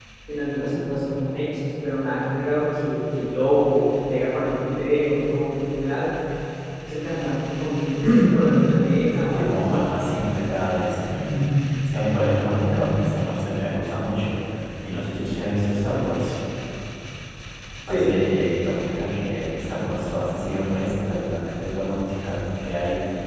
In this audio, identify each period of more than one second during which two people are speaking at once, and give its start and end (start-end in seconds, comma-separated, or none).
none